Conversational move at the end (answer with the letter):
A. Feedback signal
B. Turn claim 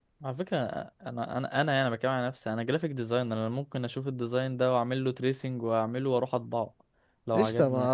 B